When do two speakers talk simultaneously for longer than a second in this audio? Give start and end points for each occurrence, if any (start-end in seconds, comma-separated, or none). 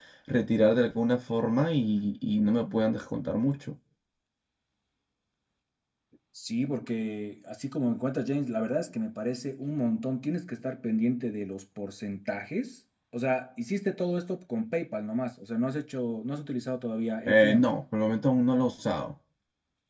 none